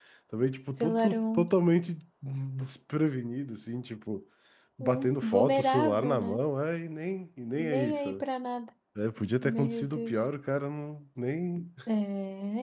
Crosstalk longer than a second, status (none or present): present